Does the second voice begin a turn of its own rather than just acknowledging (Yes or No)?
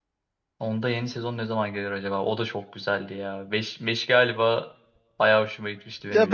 Yes